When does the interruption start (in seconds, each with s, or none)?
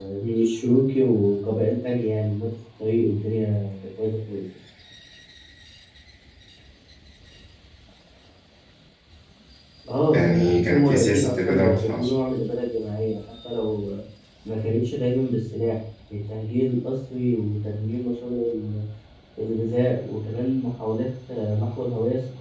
10.1 s